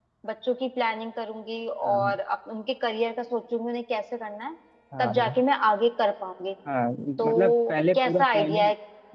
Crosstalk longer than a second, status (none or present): present